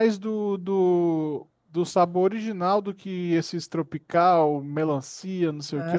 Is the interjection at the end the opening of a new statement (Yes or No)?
Yes